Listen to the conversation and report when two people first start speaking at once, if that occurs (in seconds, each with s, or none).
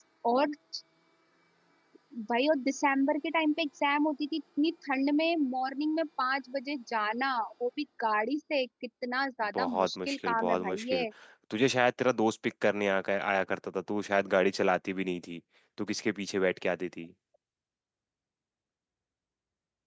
9.5 s